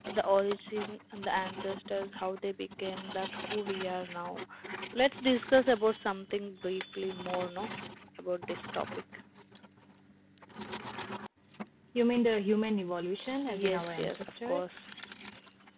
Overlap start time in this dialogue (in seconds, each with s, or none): 13.5 s